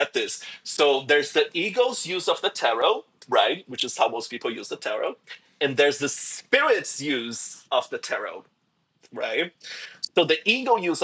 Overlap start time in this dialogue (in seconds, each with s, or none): none